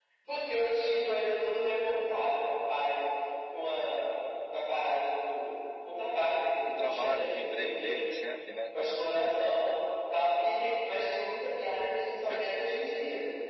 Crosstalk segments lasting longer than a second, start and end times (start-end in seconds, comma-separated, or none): 6.8-8.0